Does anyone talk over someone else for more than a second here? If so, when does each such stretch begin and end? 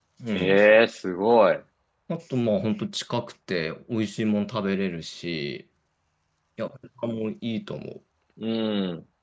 none

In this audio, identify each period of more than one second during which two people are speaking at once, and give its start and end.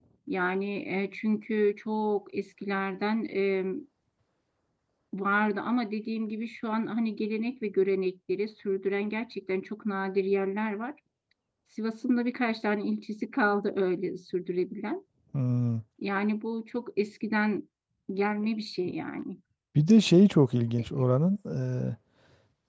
none

